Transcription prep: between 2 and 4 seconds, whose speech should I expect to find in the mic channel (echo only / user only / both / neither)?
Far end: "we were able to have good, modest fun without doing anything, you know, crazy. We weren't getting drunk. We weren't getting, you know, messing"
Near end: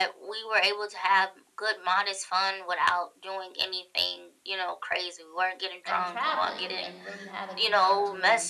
echo only